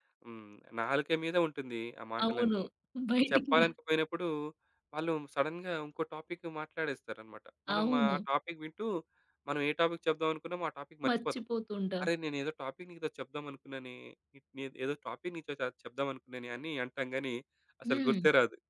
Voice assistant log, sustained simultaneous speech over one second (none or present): none